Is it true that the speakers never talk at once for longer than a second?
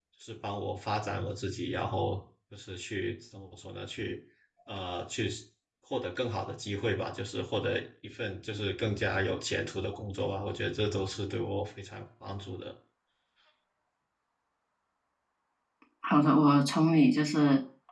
Yes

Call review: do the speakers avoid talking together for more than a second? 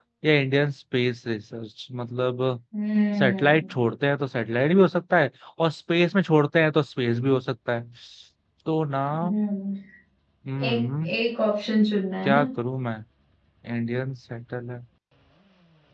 Yes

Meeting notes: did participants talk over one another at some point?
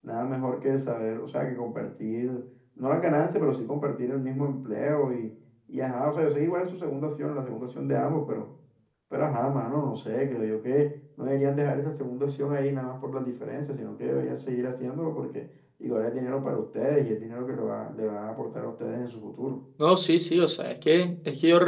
No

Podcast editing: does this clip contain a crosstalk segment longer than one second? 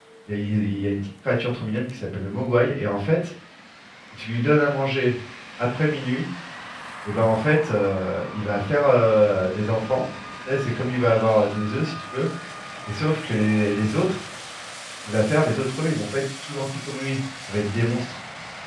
No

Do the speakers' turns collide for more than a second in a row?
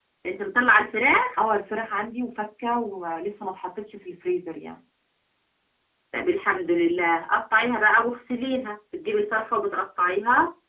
No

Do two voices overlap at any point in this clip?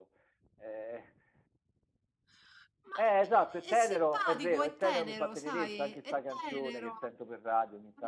Yes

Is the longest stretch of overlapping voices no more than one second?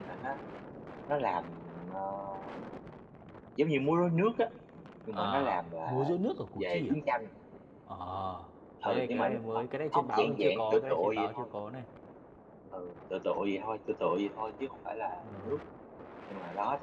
No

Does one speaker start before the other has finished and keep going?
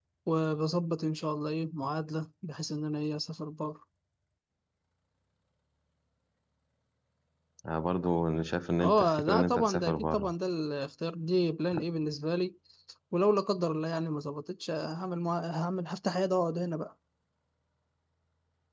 Yes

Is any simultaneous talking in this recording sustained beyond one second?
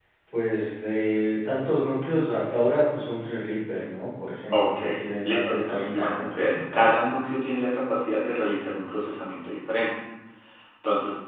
Yes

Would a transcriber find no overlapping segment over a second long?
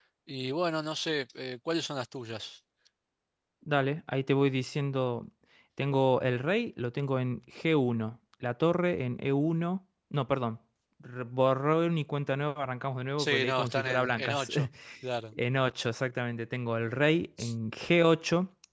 No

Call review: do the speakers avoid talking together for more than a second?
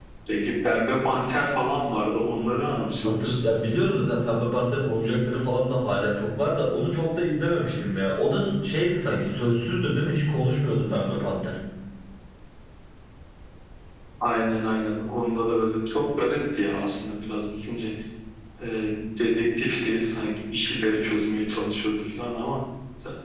Yes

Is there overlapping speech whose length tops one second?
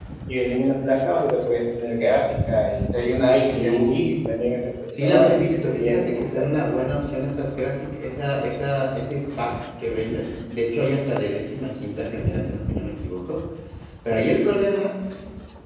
Yes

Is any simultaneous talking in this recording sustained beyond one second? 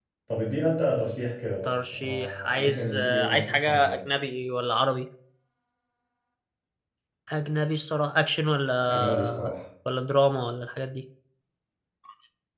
Yes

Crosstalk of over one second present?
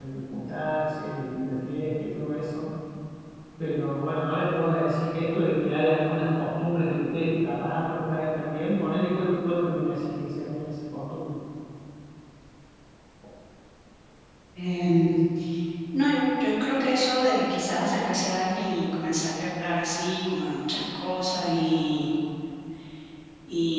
No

